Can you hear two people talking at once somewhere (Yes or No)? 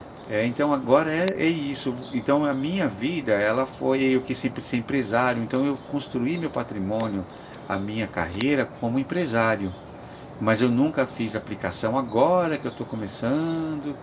No